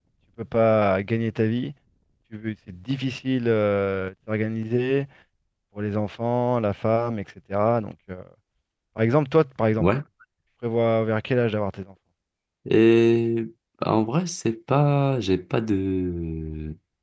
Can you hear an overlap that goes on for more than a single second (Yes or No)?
No